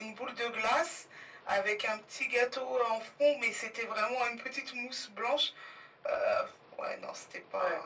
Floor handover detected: Yes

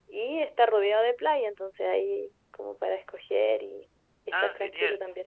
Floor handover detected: Yes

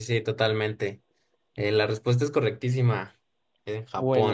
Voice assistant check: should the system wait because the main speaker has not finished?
No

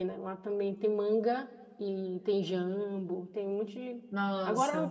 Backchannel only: Yes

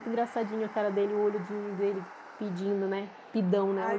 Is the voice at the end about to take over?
Yes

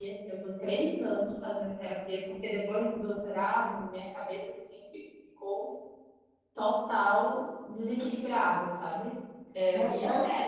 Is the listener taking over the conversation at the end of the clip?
Yes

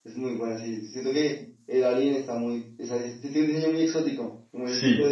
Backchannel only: Yes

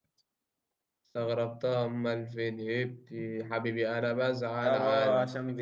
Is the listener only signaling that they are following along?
No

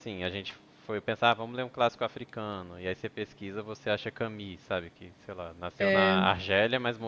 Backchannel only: Yes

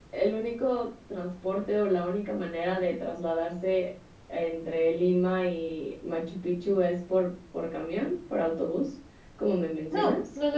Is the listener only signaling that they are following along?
No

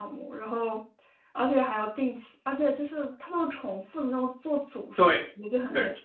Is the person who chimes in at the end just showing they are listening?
No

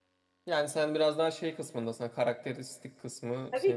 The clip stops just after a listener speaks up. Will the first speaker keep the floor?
No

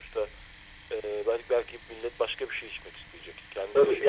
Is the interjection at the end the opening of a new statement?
Yes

